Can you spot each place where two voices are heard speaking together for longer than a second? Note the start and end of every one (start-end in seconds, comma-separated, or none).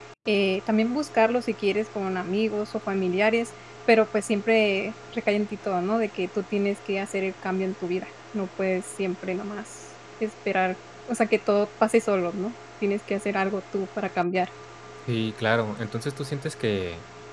none